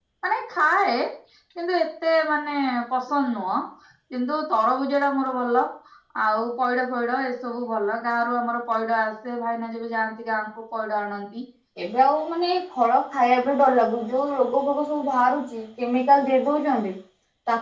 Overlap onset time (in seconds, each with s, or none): none